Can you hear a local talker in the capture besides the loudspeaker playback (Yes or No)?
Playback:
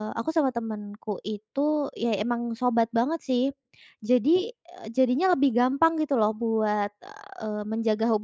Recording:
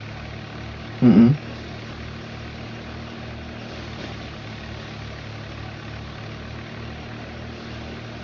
Yes